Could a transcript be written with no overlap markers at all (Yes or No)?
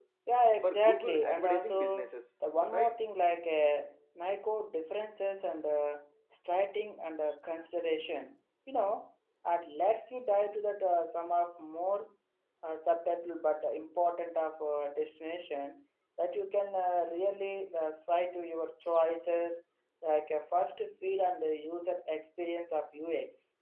No